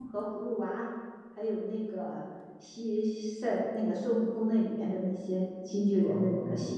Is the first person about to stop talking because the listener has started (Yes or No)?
Yes